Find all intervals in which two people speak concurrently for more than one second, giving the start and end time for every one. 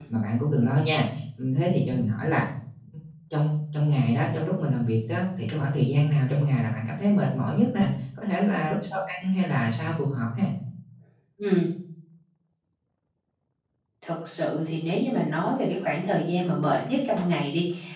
none

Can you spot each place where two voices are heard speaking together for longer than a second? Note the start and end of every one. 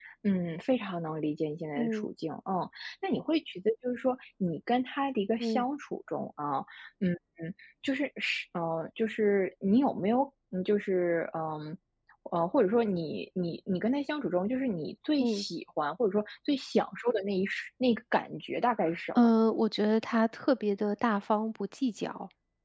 none

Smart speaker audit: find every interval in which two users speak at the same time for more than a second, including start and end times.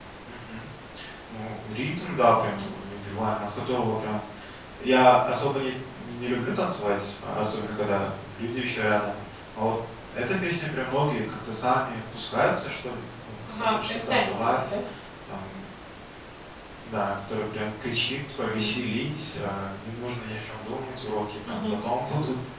13.5-14.7

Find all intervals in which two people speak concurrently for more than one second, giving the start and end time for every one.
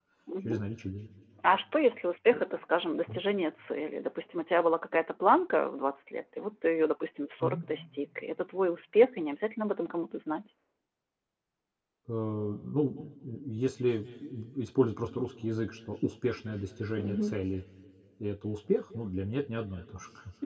none

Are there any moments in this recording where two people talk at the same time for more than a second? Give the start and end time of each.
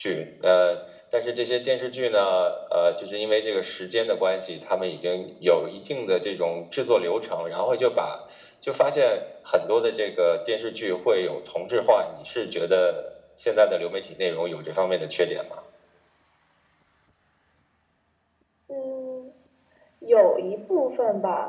none

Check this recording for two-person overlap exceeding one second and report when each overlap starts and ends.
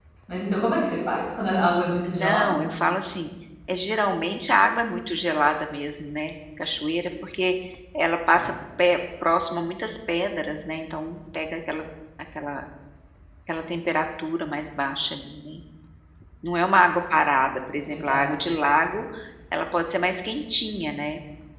none

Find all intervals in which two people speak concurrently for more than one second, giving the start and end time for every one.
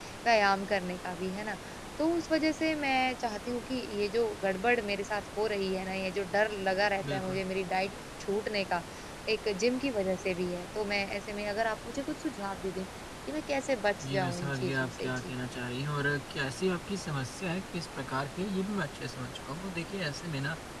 14.1-15.3

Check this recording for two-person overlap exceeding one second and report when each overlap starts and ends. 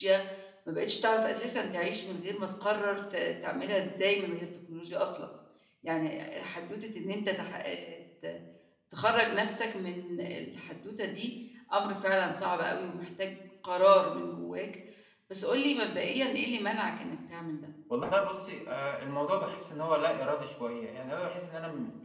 none

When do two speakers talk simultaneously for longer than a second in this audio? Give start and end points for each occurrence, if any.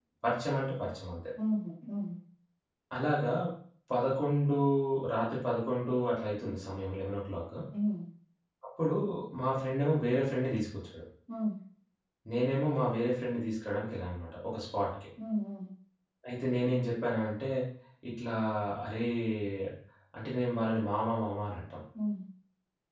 none

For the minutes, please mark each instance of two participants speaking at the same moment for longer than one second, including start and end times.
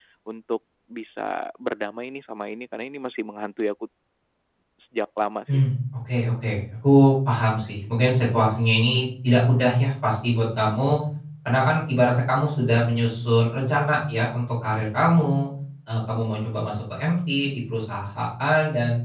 none

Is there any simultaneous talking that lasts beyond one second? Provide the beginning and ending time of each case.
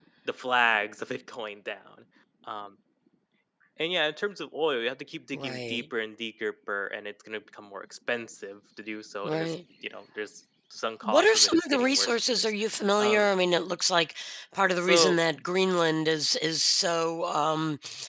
11.0-12.5

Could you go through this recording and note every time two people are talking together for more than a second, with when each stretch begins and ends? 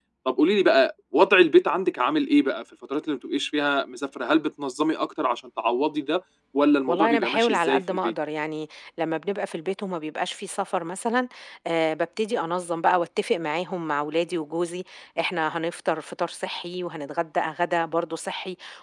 6.9-8.1

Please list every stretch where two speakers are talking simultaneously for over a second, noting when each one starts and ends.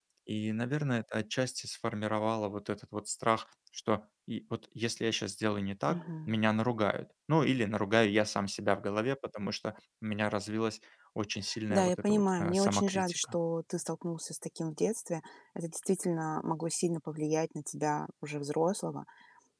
11.7-13.3

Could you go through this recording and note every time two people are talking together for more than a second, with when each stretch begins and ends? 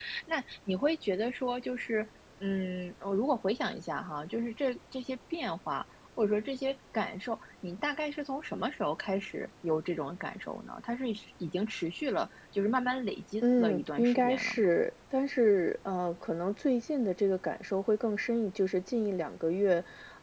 13.4-14.7

